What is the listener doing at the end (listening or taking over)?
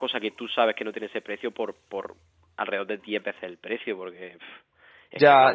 taking over